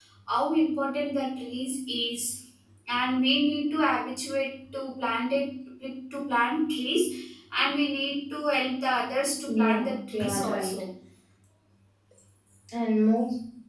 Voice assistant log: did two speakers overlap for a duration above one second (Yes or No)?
Yes